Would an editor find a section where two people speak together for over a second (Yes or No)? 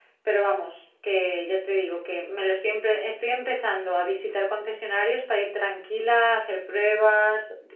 No